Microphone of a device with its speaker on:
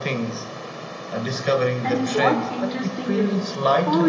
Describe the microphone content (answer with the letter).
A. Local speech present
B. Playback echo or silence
A